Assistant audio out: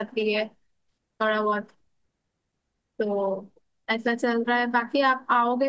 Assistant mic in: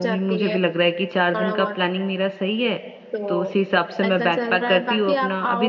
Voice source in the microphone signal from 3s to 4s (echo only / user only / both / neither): both